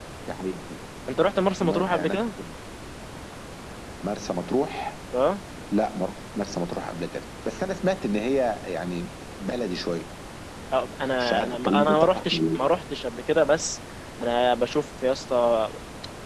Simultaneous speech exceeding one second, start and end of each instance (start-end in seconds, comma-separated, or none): 11.2-12.6